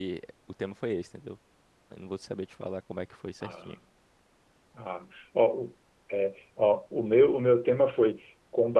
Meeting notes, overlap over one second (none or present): none